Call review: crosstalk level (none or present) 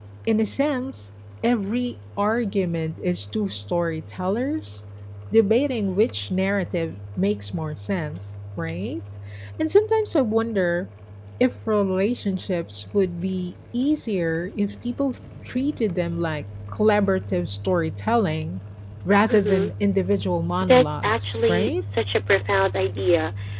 present